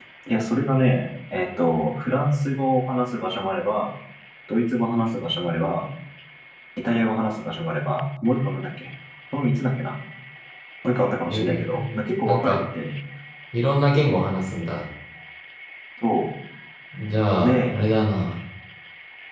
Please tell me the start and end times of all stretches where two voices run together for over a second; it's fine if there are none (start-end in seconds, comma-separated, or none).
11.3-12.6